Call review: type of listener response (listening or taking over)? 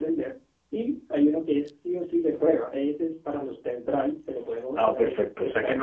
taking over